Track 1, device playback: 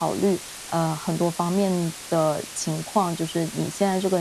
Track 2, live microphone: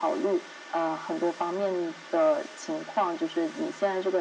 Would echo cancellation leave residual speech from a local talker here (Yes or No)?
No